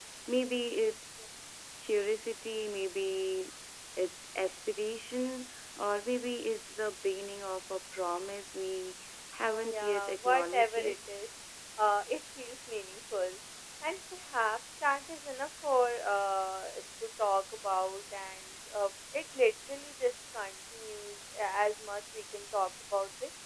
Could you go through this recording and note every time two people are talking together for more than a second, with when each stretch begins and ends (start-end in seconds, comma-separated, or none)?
9.6-11.0